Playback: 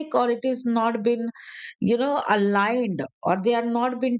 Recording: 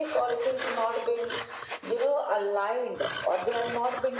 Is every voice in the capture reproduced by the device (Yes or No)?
Yes